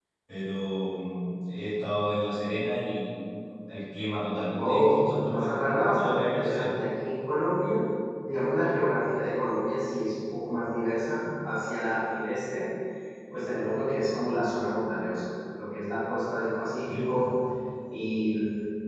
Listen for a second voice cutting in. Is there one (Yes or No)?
Yes